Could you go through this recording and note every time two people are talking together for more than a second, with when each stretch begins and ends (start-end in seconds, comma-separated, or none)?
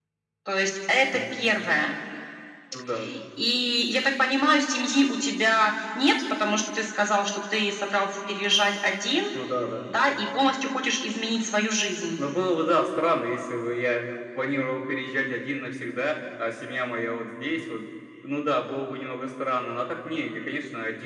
none